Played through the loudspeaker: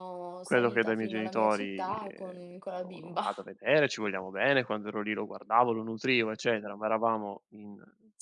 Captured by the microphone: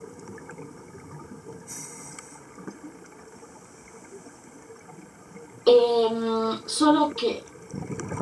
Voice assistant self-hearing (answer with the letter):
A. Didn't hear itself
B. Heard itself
A